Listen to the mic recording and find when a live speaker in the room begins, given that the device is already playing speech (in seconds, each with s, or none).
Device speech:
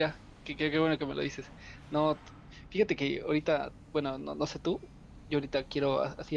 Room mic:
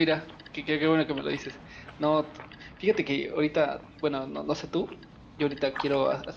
none